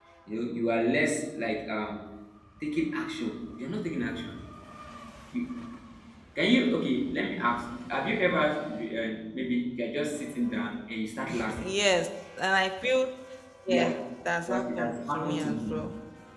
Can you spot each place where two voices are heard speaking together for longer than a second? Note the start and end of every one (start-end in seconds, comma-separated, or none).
14.5-15.7